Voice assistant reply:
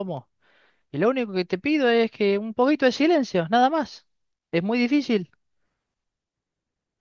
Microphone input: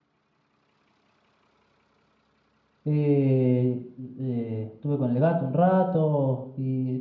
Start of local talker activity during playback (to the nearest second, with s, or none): 3 s